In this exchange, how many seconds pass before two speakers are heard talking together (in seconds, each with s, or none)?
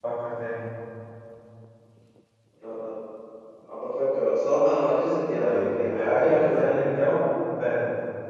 5.4 s